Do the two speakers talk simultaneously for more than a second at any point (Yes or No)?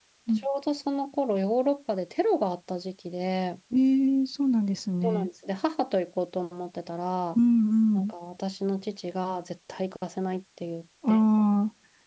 No